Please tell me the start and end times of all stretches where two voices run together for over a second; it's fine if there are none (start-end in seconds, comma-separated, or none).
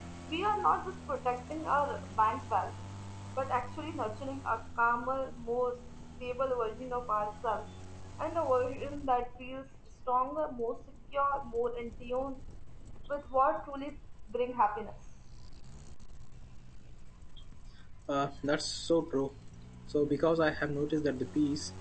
none